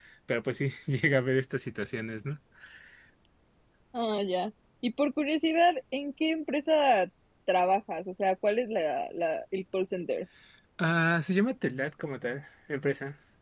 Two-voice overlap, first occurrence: none

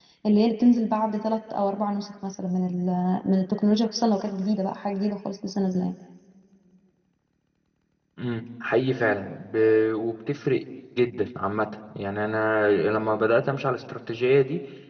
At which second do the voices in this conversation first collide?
none

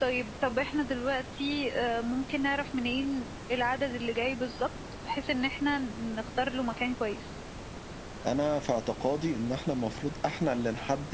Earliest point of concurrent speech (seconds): none

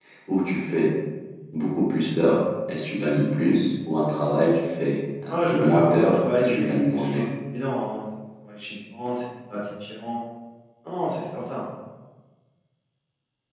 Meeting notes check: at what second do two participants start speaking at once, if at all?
5 s

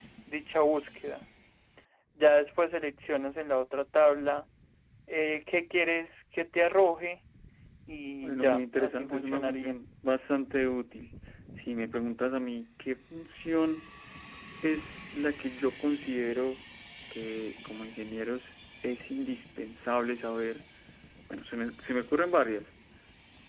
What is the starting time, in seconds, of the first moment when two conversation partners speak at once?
8 s

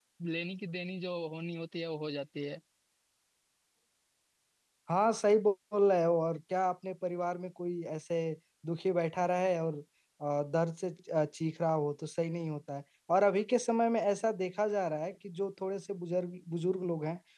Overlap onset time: none

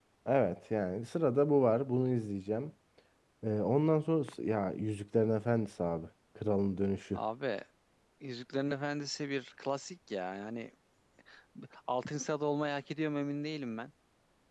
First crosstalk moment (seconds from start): none

